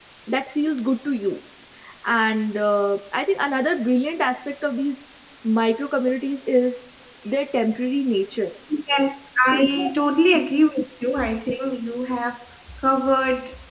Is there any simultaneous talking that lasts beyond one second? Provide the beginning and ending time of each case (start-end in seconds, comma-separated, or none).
none